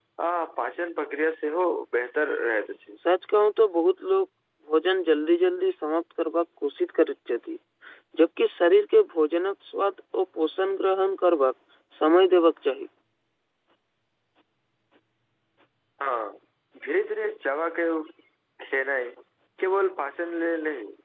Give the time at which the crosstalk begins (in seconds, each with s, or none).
none